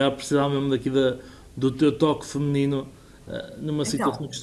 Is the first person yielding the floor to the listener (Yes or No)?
No